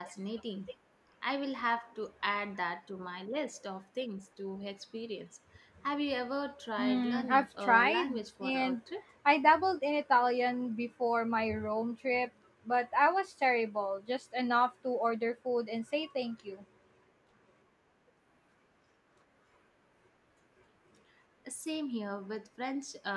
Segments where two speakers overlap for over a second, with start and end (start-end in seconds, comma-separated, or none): 6.8-8.8